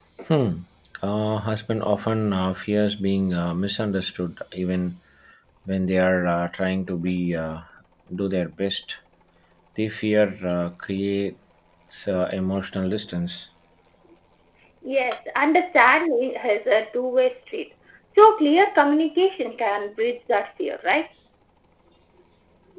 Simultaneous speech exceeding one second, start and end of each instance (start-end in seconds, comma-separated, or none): none